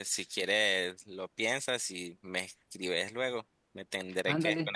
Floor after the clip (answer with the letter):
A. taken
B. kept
A